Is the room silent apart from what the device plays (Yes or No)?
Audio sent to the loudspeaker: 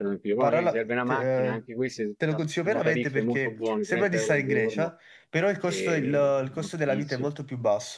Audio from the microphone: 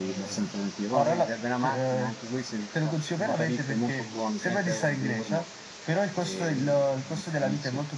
Yes